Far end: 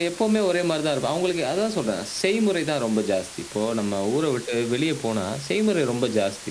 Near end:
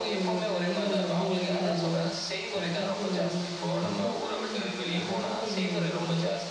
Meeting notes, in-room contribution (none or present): present